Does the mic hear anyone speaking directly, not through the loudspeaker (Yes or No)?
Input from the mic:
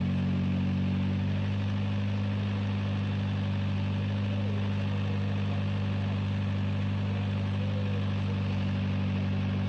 No